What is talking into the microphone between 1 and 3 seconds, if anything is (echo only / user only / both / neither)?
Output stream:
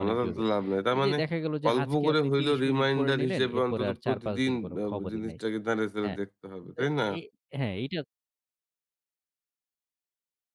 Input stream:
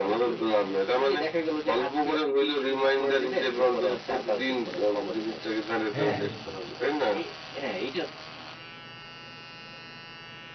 echo only